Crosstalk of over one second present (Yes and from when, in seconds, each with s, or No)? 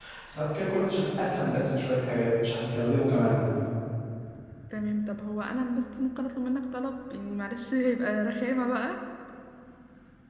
No